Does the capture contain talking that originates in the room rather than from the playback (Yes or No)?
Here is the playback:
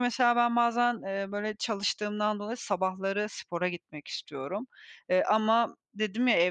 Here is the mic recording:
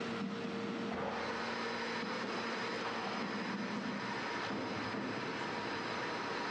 No